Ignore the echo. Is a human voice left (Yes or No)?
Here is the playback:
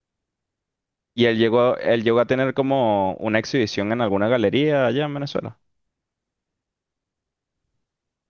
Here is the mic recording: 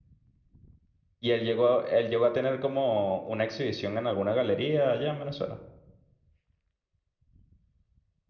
No